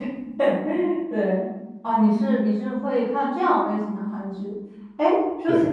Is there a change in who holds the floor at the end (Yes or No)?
No